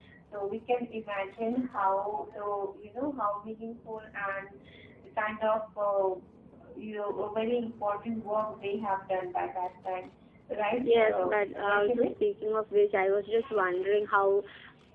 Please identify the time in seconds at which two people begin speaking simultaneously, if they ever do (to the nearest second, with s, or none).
11 s